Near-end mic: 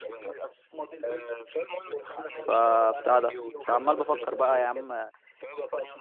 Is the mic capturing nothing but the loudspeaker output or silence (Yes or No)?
No